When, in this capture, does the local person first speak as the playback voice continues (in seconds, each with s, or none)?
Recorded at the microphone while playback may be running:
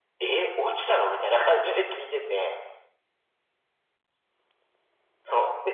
none